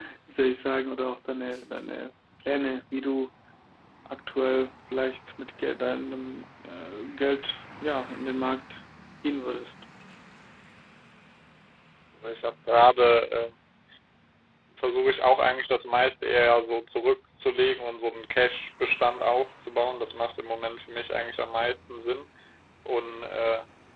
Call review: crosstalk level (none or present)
none